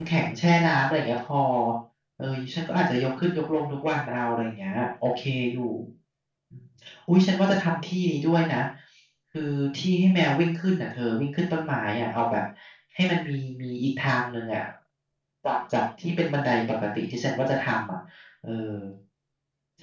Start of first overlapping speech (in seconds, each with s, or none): none